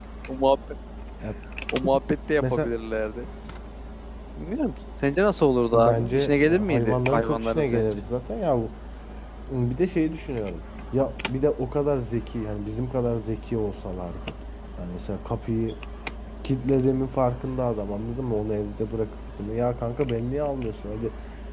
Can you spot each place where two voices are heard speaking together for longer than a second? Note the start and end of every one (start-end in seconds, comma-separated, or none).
5.7-8.0